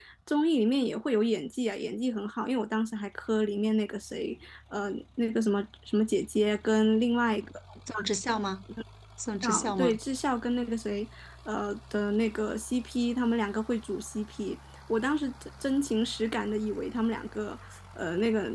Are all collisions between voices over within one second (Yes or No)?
Yes